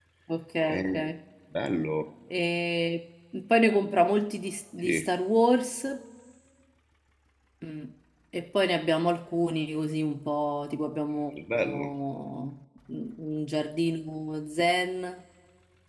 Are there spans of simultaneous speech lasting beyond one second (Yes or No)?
No